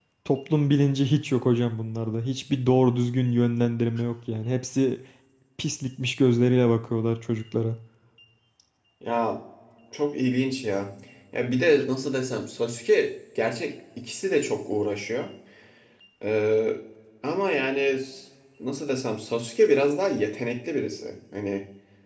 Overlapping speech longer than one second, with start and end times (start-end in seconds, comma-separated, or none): none